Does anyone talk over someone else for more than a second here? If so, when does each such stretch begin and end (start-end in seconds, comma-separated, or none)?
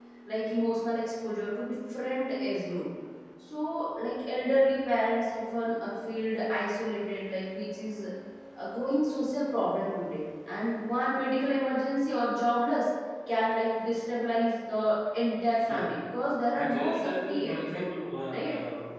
16.6-17.8